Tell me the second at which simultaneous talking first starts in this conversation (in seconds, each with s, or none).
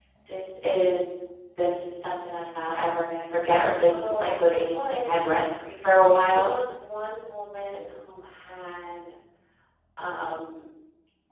3.8 s